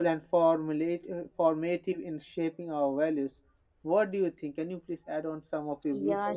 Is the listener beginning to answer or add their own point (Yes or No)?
Yes